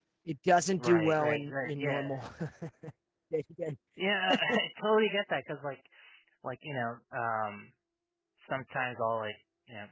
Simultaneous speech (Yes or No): Yes